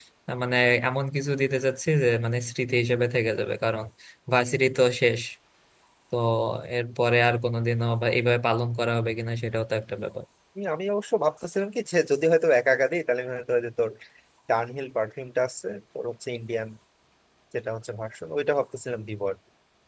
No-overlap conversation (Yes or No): Yes